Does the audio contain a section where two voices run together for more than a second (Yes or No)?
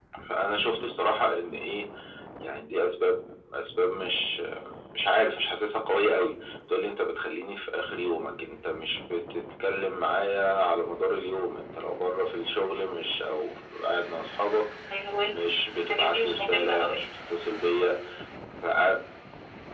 Yes